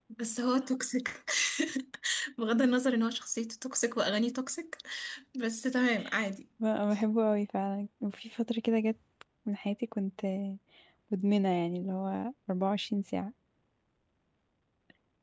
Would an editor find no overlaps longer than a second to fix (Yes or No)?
Yes